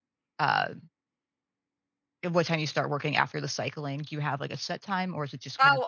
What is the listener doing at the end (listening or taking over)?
taking over